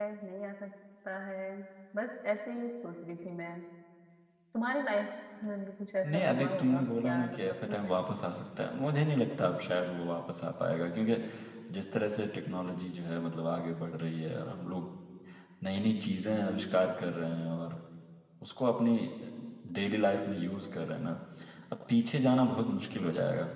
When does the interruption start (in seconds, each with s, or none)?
6.0 s